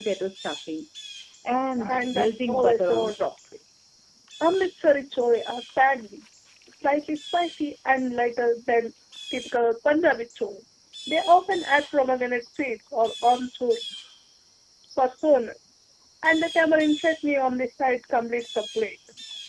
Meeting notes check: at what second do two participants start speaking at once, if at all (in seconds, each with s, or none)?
1.9 s